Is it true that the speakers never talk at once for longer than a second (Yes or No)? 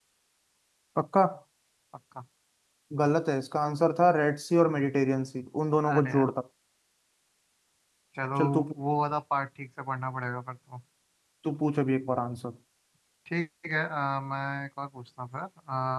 Yes